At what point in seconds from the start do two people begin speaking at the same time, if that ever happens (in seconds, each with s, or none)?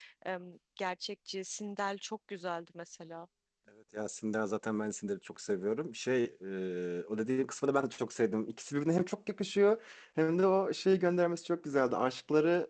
none